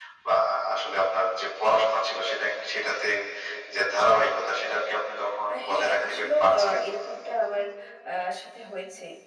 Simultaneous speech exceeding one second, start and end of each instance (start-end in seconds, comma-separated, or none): 5.5-6.8